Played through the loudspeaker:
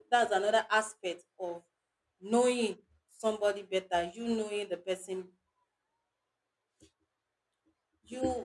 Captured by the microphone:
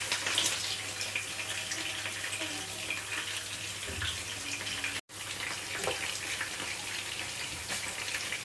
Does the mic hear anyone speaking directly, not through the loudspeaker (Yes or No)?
No